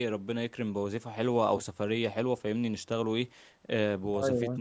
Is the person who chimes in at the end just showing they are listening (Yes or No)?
Yes